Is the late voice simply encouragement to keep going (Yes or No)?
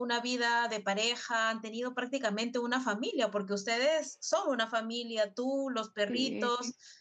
Yes